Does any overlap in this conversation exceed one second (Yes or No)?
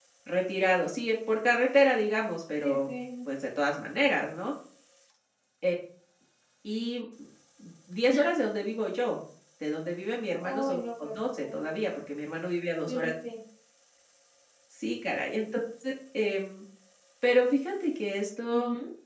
Yes